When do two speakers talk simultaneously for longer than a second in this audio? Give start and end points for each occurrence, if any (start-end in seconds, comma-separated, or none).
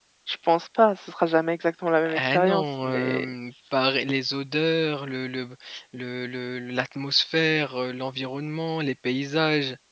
2.0-3.3